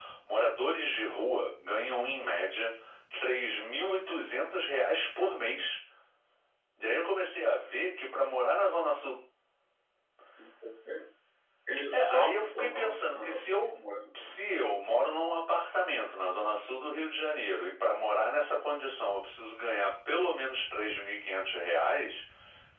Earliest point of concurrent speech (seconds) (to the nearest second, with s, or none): 12 s